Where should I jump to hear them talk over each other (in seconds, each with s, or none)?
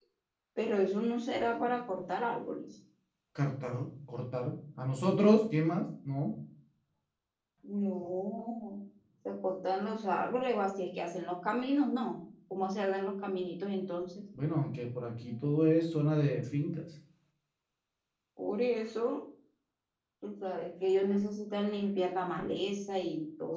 none